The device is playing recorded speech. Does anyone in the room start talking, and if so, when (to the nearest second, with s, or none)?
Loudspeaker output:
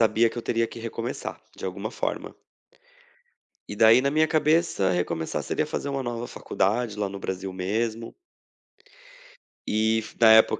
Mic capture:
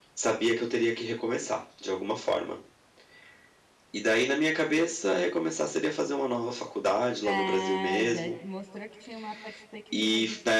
7 s